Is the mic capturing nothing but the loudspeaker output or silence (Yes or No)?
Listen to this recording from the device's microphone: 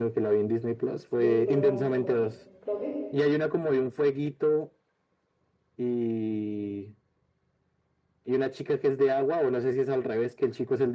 No